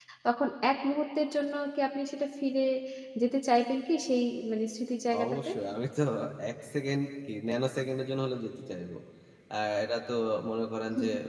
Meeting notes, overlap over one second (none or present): none